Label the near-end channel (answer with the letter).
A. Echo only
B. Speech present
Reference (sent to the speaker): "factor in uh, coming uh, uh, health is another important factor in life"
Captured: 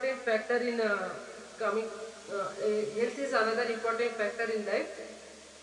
A